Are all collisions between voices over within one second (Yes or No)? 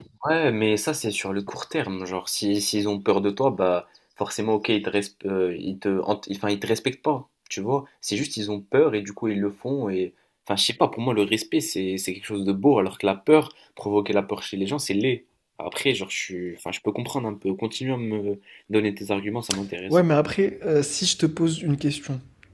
Yes